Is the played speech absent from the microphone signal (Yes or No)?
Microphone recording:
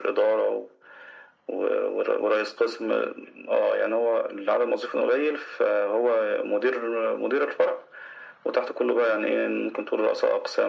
No